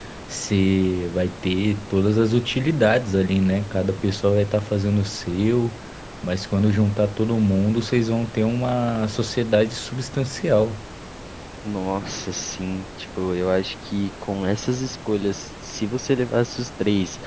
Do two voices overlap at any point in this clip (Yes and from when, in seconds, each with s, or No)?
No